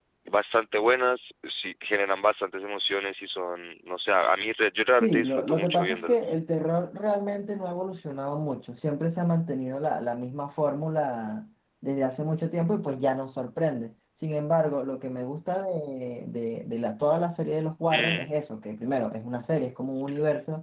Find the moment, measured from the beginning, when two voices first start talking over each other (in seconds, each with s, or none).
5.0 s